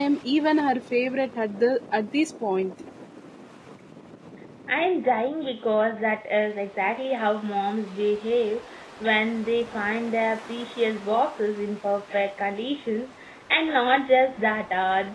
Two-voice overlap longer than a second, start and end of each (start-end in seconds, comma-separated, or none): none